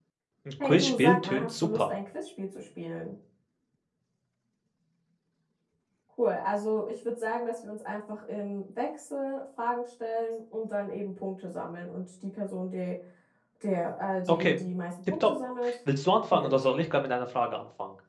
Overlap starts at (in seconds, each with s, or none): 0.6 s